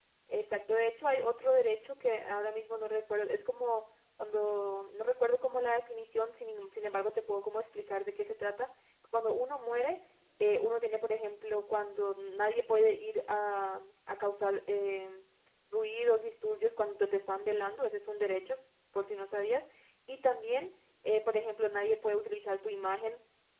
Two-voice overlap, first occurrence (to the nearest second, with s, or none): none